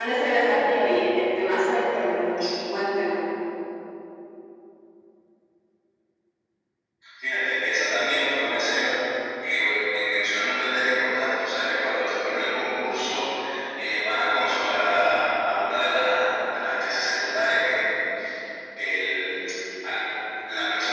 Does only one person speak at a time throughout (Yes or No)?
Yes